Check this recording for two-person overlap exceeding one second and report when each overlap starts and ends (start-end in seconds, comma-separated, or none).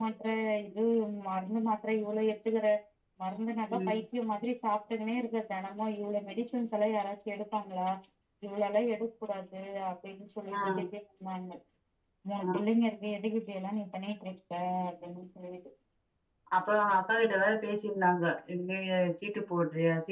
none